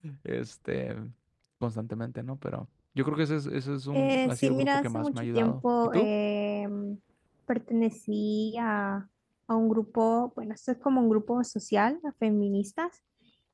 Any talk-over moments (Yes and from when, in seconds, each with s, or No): Yes, from 3.9 s